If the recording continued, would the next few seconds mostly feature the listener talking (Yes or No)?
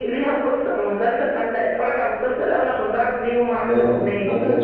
Yes